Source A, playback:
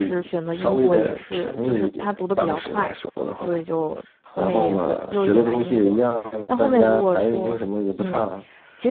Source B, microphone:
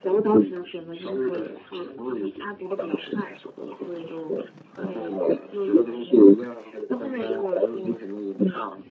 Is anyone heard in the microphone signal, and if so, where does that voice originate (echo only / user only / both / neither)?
echo only